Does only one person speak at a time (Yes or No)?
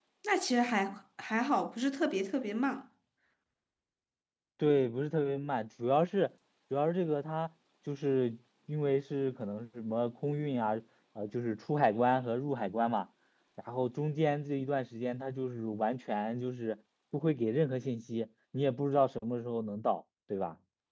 Yes